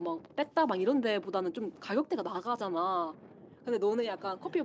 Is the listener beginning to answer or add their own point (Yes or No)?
No